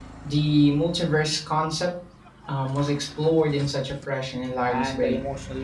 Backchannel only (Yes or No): No